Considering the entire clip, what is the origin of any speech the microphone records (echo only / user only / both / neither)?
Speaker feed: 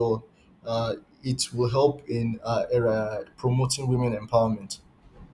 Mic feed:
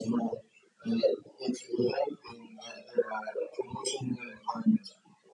echo only